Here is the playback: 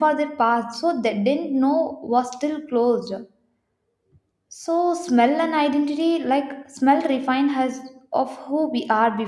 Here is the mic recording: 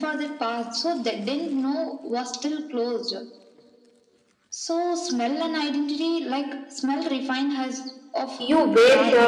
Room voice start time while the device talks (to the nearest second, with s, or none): 8 s